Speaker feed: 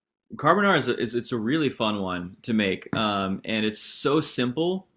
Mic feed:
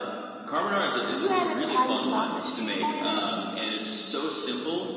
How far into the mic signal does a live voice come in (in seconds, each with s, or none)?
1.1 s